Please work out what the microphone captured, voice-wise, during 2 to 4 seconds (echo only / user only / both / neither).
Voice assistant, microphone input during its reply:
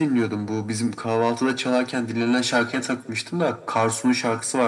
echo only